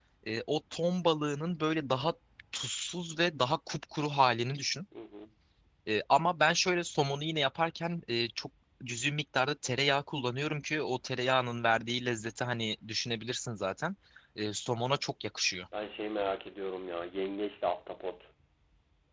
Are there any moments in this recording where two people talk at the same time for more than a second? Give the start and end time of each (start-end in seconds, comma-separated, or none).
none